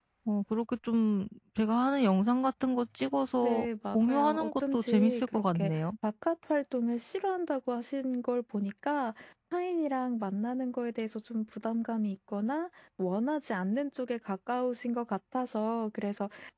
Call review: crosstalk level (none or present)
present